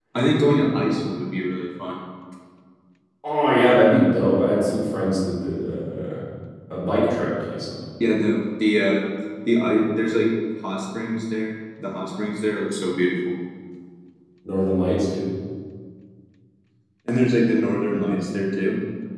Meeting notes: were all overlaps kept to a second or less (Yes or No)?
Yes